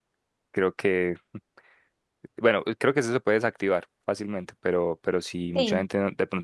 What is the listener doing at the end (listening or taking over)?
listening